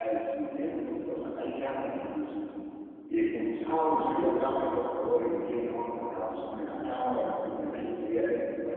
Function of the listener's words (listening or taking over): listening